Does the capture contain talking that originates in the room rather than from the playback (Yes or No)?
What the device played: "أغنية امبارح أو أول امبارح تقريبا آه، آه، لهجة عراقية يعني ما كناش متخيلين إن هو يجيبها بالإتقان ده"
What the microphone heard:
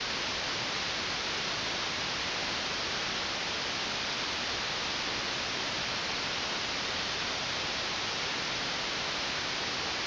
No